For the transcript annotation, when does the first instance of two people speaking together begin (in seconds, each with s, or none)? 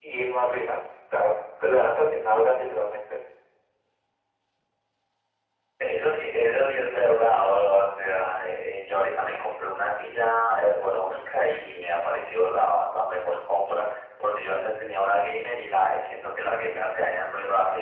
none